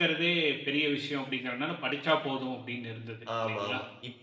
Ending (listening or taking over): taking over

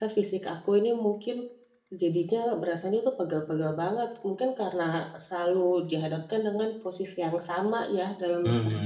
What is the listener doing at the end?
taking over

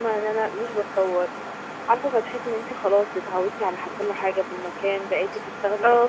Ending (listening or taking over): listening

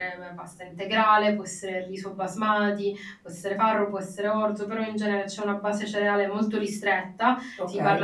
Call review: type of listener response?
listening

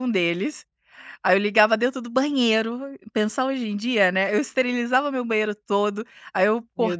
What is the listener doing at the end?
listening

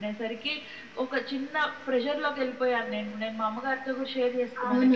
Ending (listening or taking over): taking over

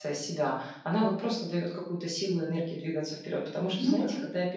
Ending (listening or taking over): listening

